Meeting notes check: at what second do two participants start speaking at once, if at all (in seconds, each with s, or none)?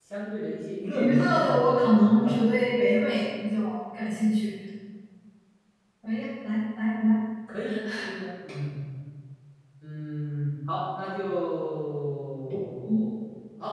0.9 s